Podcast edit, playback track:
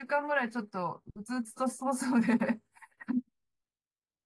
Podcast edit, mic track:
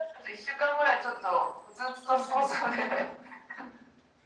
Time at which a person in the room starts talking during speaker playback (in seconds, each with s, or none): 2.0 s